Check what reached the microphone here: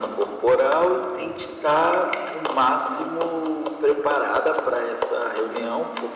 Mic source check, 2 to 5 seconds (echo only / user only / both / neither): echo only